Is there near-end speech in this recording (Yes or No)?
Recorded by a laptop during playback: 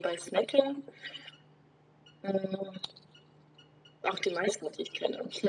No